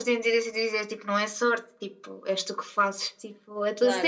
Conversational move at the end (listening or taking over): taking over